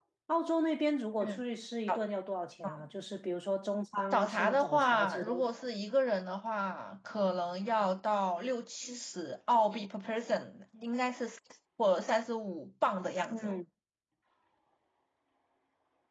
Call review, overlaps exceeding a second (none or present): present